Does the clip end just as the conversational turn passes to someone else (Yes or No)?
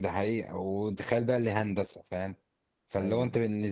No